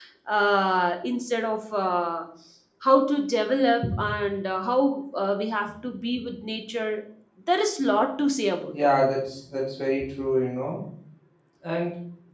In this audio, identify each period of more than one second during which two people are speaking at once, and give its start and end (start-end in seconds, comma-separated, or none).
none